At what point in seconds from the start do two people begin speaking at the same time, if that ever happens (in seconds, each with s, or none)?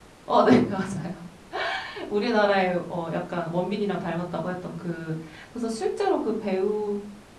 none